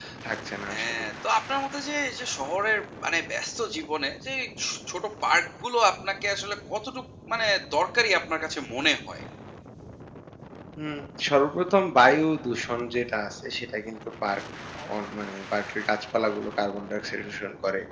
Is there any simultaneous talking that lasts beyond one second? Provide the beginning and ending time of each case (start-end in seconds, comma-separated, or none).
none